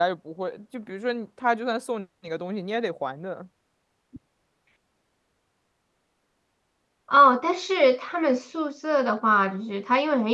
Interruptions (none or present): none